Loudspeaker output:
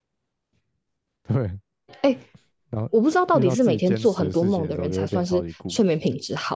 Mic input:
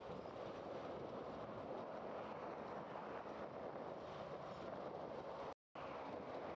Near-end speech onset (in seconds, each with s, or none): none